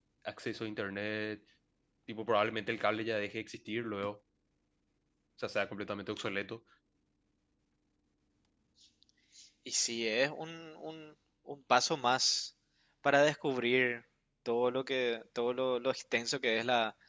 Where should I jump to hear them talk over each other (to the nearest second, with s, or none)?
none